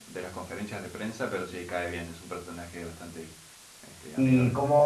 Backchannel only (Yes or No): No